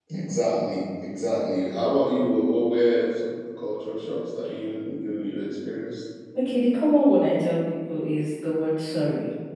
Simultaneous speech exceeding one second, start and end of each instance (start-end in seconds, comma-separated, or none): none